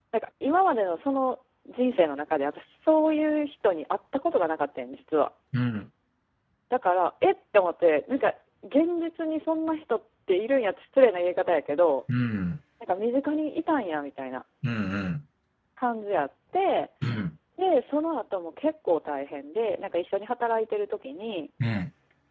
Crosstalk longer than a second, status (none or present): none